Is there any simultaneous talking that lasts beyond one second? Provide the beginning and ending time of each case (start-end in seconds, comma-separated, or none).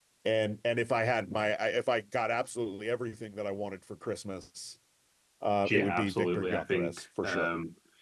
5.7-7.5